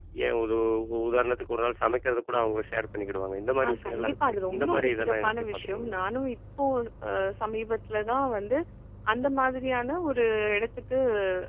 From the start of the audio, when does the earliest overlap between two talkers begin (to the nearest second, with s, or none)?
4 s